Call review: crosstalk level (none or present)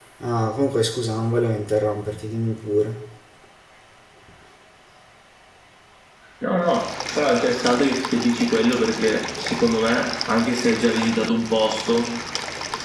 none